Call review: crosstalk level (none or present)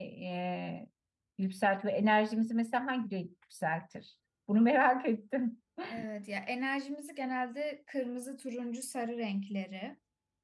none